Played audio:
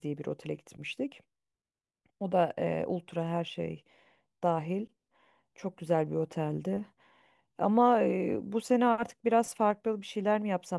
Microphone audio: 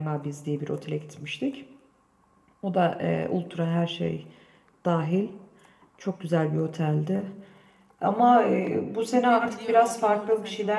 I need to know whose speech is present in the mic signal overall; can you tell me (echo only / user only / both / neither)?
both